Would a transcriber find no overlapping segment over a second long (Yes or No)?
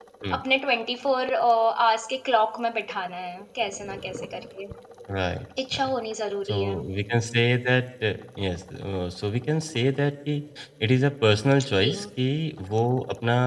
Yes